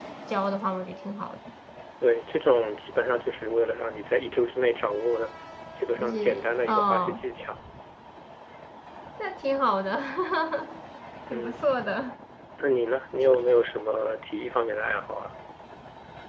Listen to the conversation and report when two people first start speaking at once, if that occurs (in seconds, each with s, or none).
6.0 s